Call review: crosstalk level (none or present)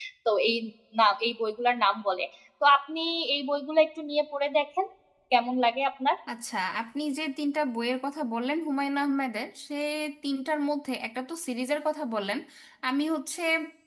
none